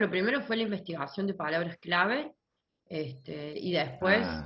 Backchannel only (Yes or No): Yes